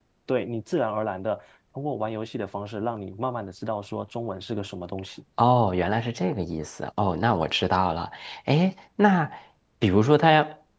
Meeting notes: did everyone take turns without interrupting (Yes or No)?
Yes